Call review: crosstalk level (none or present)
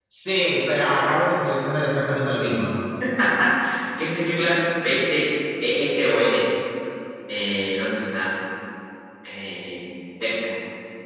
none